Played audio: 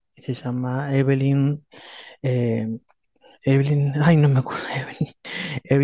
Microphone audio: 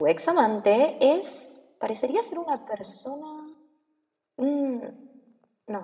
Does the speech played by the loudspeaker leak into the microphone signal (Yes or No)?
No